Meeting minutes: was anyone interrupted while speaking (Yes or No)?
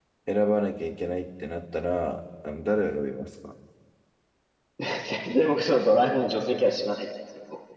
No